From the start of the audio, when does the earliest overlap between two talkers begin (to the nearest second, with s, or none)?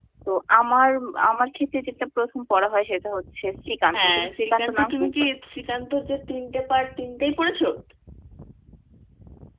4 s